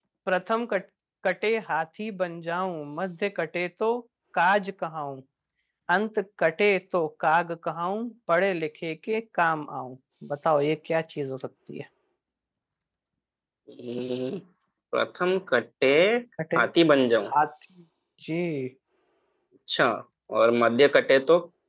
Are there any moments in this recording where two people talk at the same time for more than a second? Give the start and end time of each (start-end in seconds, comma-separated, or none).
none